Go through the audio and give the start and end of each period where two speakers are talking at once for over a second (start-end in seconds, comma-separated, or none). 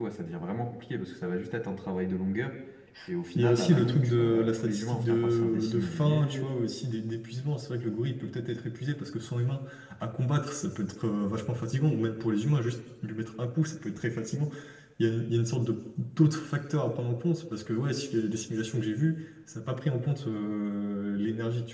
3.4-6.5